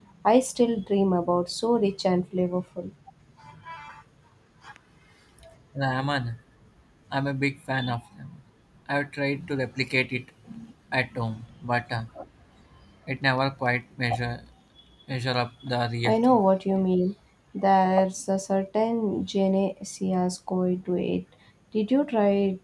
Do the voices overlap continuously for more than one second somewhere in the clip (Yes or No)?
No